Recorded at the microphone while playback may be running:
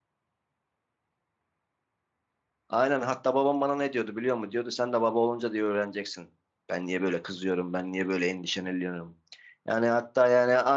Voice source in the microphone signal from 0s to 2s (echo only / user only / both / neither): neither